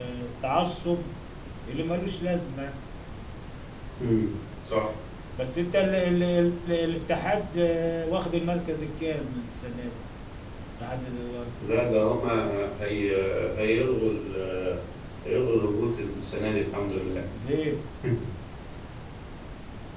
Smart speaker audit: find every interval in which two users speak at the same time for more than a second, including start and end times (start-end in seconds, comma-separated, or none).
none